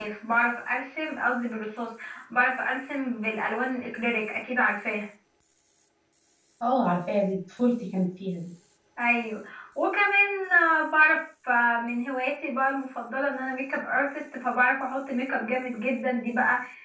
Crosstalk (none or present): none